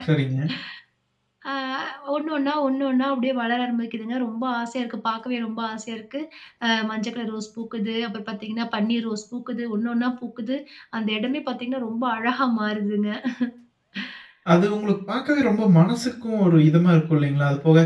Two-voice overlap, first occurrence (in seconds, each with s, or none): none